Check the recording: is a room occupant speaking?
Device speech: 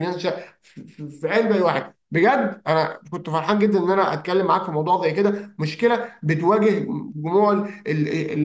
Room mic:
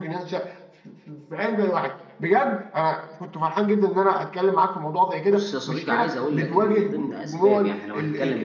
Yes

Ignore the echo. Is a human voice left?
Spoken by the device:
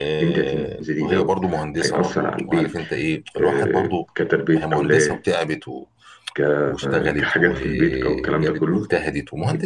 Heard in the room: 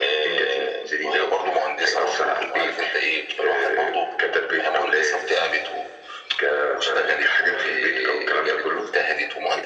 No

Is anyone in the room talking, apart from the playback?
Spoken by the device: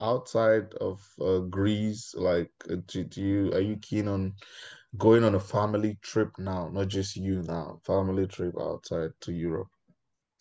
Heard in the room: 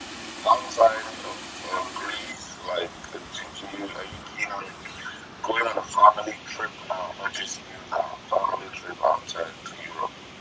No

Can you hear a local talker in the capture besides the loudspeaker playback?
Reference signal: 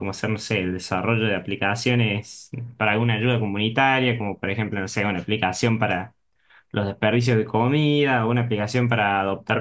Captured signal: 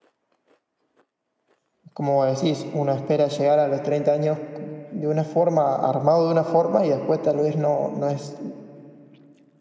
Yes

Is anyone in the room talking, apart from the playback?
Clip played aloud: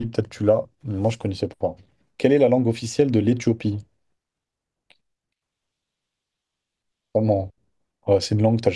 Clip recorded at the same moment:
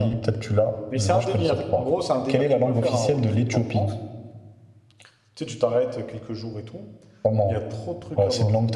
Yes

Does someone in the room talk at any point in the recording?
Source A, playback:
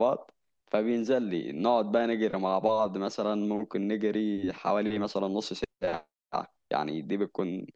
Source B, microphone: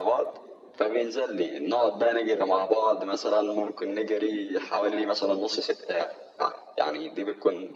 No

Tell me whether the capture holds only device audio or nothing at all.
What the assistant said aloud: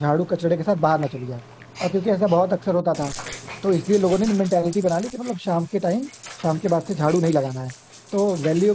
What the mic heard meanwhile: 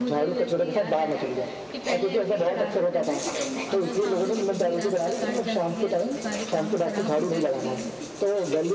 No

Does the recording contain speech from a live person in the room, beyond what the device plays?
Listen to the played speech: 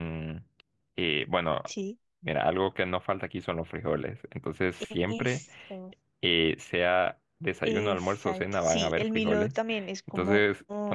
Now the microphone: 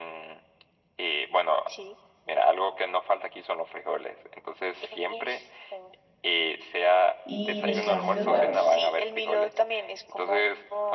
Yes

